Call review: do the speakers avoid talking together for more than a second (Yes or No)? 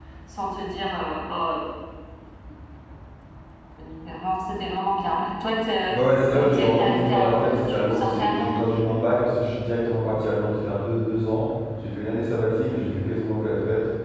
No